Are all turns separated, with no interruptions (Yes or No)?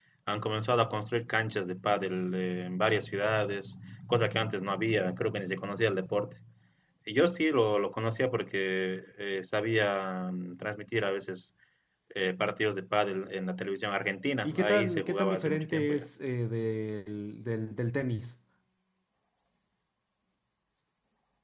No